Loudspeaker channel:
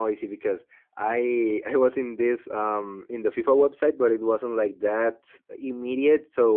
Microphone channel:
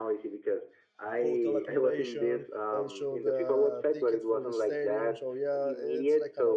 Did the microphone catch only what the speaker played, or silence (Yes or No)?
No